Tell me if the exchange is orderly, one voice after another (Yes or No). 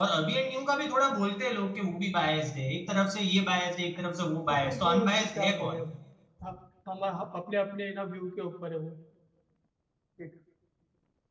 No